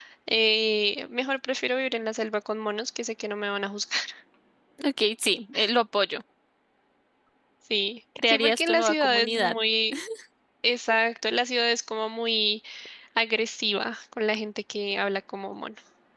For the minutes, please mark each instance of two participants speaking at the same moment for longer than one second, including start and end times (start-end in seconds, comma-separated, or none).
8.3-9.5